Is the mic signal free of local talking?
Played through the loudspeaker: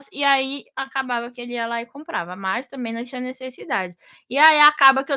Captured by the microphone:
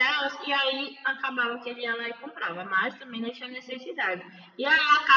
Yes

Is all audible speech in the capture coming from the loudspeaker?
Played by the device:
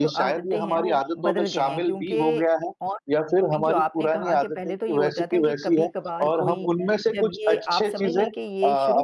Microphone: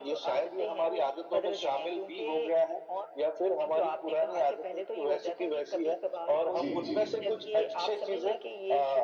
No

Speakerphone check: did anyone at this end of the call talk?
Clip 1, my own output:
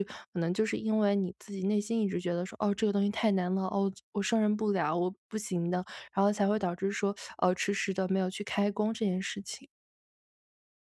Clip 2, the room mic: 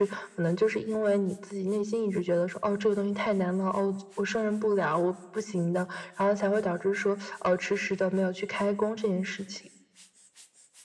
No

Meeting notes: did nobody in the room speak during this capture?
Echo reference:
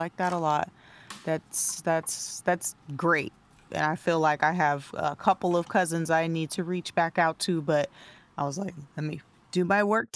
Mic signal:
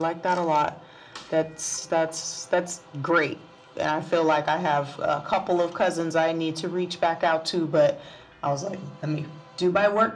Yes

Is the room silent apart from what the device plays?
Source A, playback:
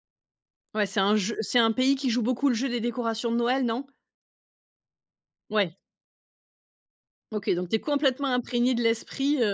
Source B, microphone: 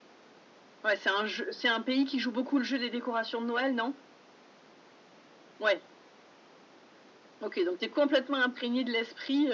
Yes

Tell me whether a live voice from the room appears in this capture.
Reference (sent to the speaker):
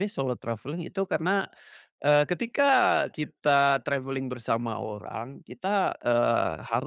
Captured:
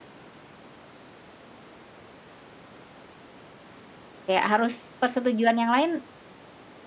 Yes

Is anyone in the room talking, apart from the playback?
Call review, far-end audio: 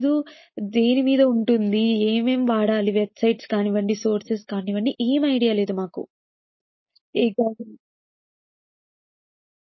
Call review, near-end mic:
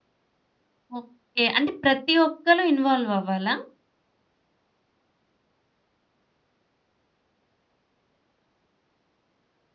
Yes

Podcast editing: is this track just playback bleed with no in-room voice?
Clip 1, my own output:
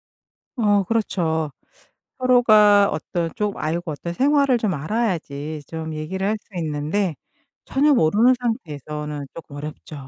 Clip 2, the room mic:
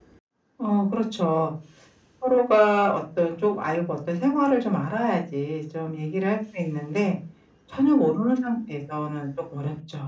Yes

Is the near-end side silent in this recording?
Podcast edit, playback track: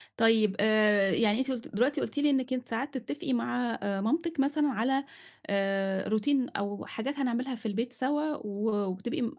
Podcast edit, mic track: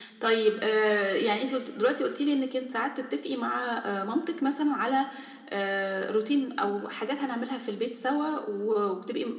Yes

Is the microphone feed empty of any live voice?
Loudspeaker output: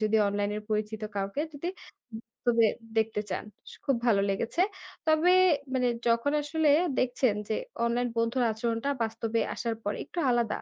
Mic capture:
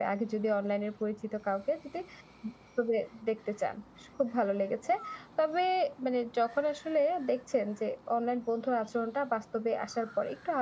Yes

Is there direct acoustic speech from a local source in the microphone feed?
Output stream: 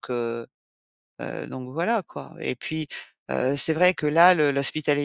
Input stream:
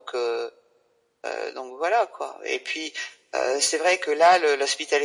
No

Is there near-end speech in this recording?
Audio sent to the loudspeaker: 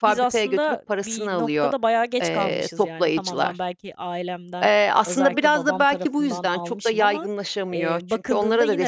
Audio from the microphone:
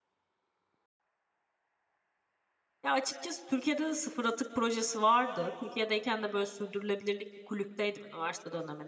Yes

